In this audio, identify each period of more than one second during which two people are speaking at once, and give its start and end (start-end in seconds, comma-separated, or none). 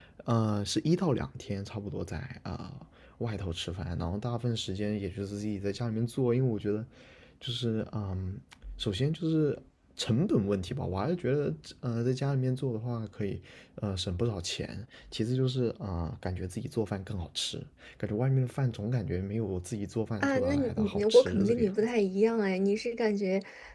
20.2-21.7